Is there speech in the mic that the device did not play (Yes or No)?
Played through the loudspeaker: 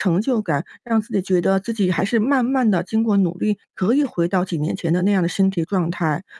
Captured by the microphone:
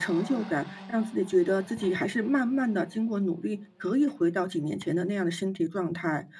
No